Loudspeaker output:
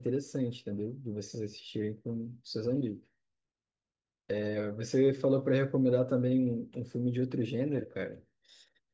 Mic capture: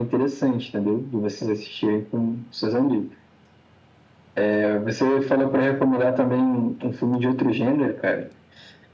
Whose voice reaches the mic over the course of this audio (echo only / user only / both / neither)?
echo only